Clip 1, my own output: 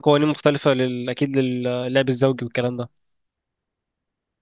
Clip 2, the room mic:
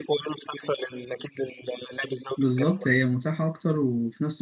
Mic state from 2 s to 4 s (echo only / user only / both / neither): both